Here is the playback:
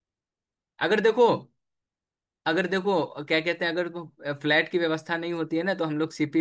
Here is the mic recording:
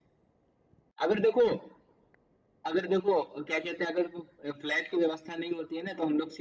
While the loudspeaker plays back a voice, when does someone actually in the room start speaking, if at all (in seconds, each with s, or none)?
none